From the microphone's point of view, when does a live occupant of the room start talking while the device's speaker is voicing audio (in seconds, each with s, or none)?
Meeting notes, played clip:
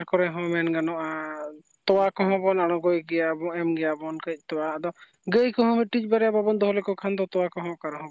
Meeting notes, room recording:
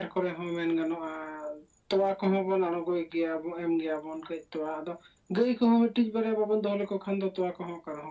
none